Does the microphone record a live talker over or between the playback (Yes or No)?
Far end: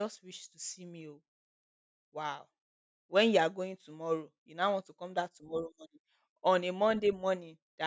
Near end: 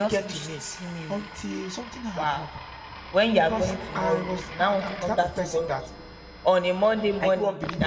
Yes